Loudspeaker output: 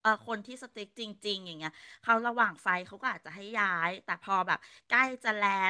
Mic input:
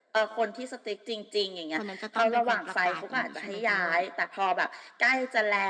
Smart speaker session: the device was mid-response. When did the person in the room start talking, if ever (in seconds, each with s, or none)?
1.7 s